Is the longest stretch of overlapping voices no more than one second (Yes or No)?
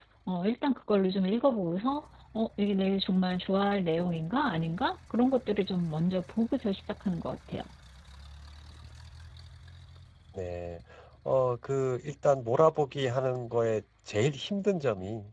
Yes